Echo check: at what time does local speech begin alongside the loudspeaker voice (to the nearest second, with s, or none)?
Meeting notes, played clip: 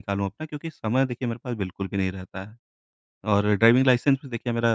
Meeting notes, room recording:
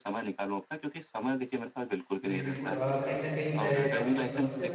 2 s